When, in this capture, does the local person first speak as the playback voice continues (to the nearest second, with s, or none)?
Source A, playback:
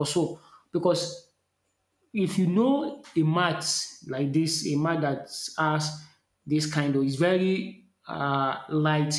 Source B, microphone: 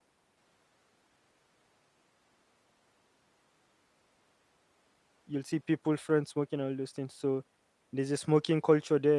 5 s